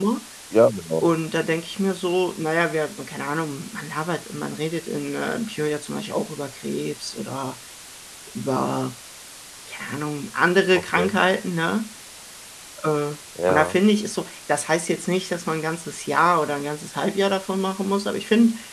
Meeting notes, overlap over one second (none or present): none